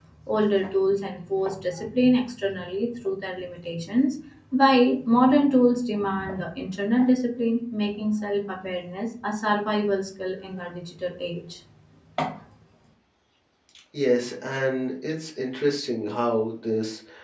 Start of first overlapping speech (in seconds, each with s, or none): none